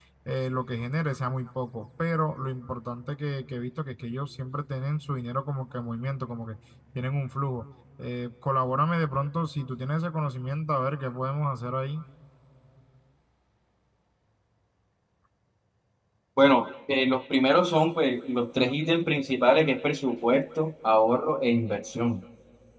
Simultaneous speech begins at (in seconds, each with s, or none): none